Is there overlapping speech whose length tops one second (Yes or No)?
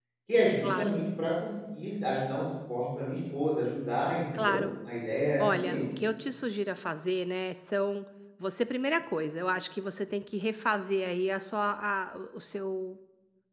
No